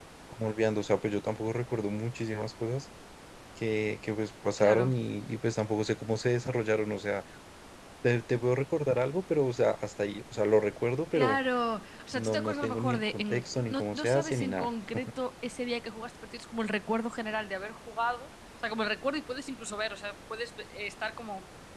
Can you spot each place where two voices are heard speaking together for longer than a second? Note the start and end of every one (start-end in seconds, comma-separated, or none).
12.2-14.7